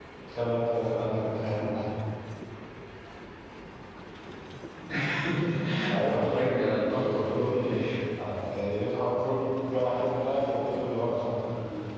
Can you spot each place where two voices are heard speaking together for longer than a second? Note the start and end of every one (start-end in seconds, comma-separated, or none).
6.0-7.8